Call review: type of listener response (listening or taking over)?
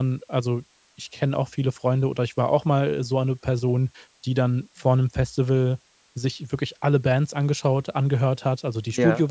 listening